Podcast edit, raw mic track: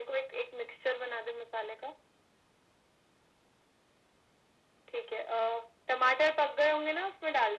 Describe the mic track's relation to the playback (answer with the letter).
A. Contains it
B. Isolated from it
A